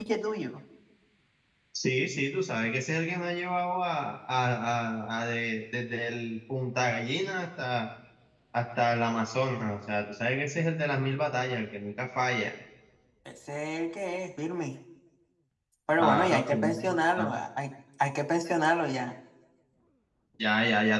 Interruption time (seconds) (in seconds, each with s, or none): 16.0 s